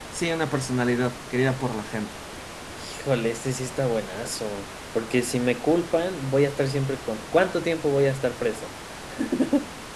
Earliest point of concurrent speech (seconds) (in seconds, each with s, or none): none